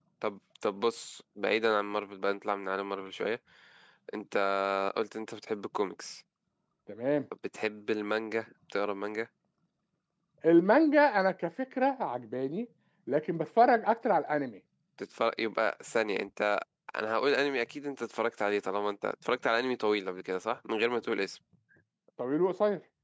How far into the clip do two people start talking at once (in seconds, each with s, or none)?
none